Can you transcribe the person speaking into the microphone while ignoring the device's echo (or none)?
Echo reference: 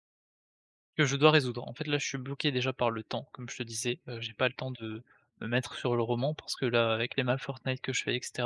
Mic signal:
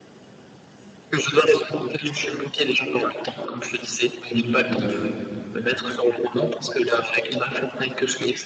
Mmh, tout à fait.